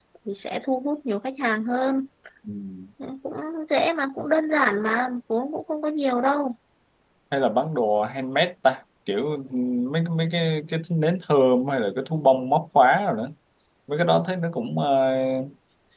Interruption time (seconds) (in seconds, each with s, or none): none